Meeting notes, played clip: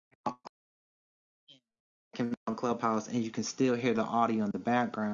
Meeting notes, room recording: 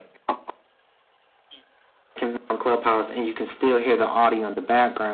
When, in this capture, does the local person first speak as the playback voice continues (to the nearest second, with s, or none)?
none